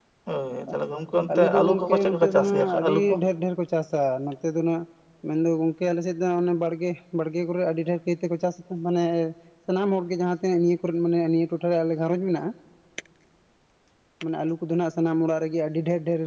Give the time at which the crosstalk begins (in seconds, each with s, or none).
1.3 s